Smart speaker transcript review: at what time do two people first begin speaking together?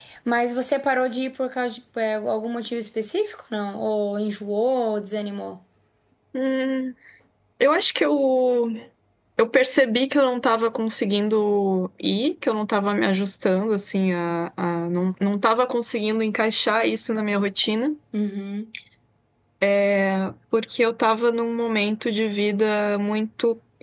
none

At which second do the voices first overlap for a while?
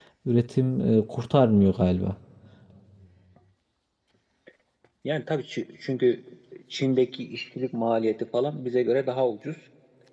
none

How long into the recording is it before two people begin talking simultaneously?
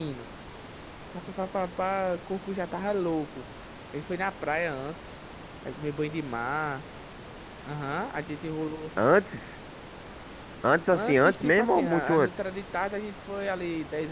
10.9 s

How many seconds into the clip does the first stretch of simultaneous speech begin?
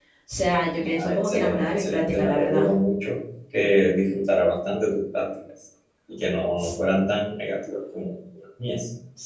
0.8 s

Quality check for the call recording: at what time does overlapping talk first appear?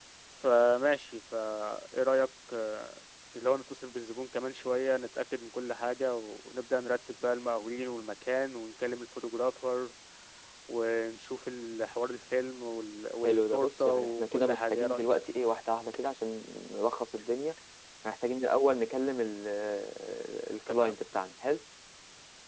13.2 s

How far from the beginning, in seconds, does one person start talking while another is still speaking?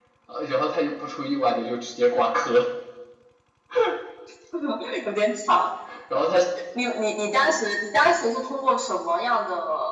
none

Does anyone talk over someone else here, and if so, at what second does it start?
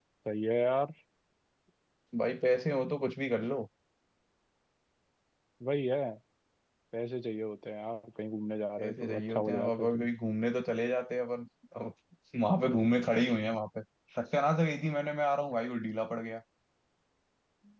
8.8 s

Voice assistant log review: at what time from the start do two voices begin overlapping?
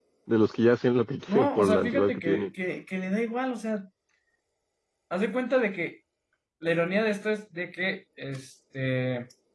1.3 s

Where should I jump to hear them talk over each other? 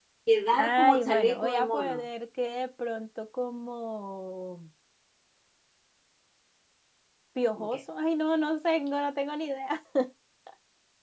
0.6 s

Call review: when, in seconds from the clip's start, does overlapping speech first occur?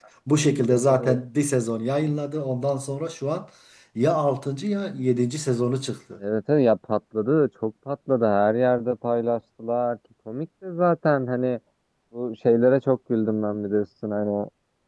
none

